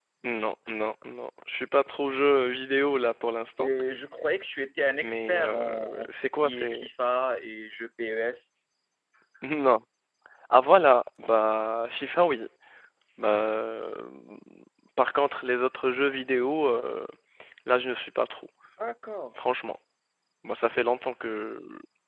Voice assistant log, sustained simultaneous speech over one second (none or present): present